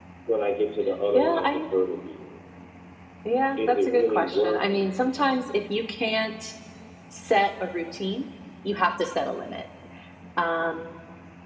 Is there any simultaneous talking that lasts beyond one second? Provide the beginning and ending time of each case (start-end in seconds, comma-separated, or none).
3.6-4.9